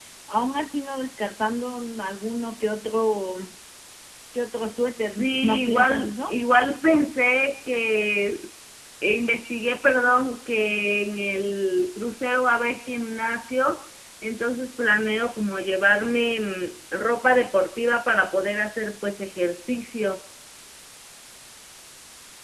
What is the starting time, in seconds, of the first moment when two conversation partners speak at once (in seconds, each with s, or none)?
5.0 s